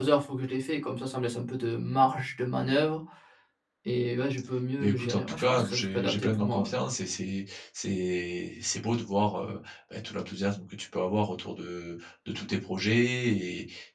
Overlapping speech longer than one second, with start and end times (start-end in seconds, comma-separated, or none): 4.8-6.7